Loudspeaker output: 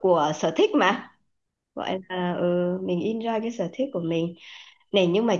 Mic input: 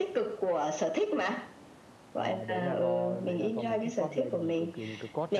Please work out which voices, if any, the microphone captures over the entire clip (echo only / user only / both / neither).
both